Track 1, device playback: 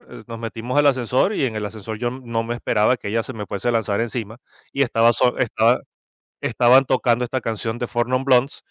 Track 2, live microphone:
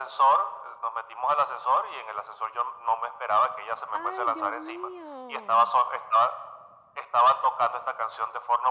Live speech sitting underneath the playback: Yes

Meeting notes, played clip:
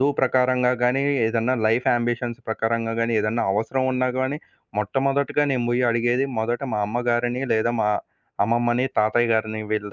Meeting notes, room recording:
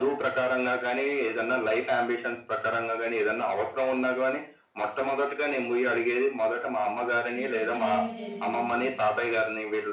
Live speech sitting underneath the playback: Yes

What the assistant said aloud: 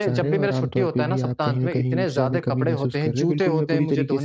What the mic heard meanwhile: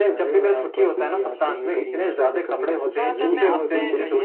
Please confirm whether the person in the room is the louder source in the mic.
No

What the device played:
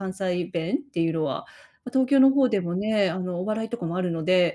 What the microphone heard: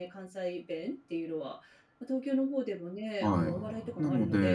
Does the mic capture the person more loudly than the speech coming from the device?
Yes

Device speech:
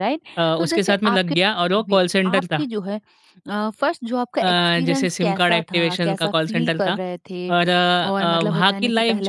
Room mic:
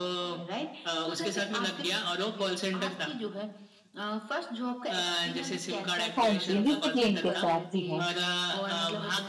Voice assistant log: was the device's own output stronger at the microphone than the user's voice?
No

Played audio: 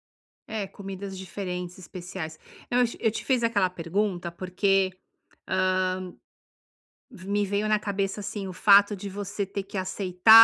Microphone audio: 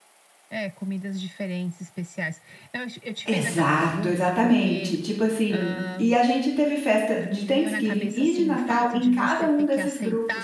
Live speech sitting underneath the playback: No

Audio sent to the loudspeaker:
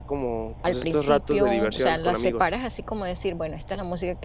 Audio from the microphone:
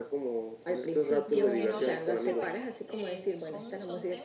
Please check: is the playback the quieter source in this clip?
No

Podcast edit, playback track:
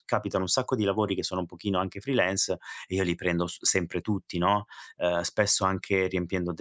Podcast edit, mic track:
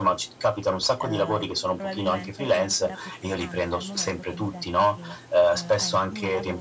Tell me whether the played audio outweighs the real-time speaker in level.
Yes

